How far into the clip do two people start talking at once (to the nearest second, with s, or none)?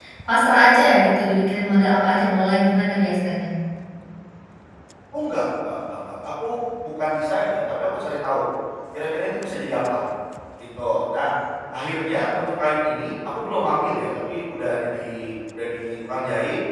none